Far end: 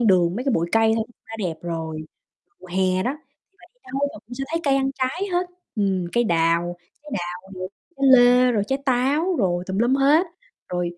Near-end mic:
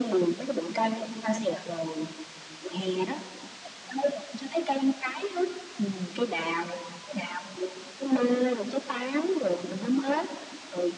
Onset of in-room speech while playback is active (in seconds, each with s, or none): 1.2 s